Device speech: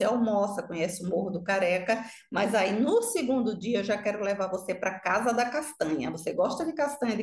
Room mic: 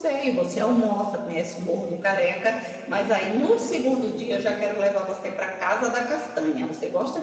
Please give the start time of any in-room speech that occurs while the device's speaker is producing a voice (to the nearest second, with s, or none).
none